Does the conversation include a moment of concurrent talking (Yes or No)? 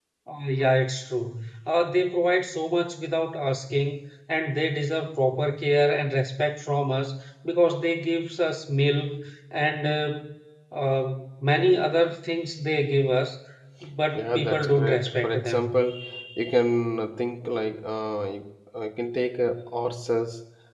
Yes